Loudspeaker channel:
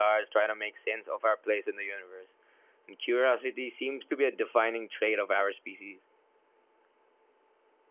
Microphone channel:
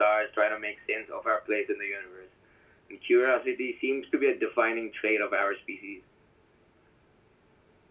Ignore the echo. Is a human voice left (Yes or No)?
No